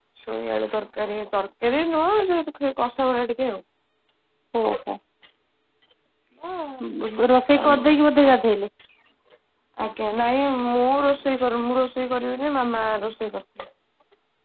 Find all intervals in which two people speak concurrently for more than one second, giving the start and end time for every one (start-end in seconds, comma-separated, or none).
none